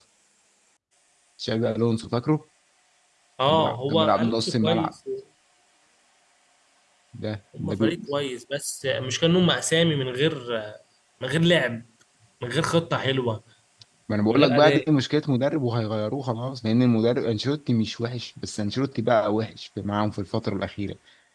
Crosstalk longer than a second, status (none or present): present